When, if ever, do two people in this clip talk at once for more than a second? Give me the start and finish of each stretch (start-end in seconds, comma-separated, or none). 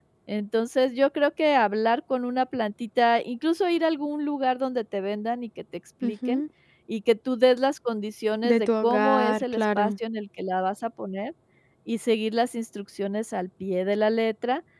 8.4-9.9